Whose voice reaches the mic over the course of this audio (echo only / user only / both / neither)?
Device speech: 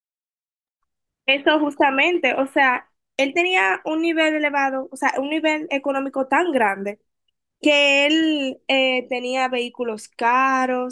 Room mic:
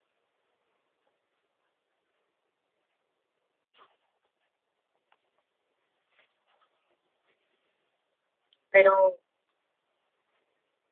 user only